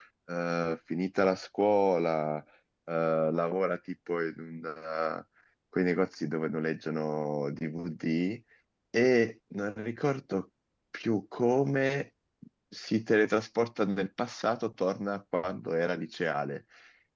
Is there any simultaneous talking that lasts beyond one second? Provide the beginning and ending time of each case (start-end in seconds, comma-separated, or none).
none